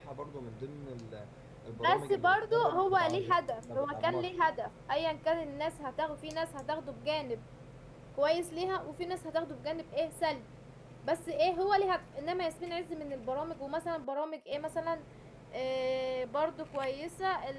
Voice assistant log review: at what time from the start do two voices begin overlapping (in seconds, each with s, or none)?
1.7 s